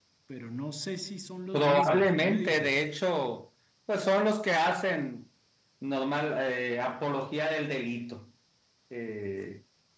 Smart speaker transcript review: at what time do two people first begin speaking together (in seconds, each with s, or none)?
1.5 s